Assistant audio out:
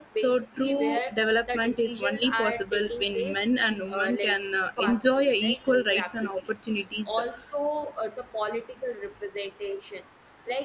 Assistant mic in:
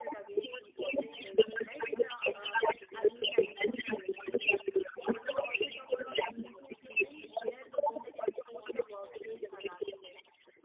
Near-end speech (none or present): present